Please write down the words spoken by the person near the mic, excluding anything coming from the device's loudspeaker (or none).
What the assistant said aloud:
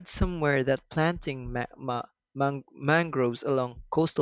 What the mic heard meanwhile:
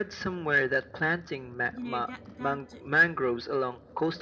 You know, that that